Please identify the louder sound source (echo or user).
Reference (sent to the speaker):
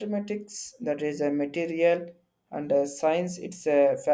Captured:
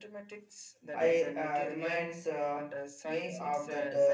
user